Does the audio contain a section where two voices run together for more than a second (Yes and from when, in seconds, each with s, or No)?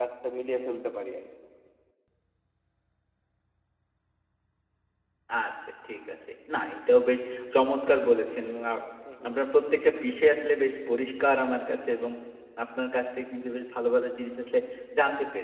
No